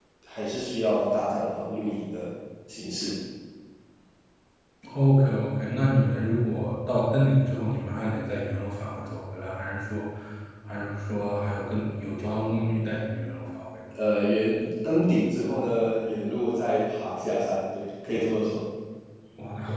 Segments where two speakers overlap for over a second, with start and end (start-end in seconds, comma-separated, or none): none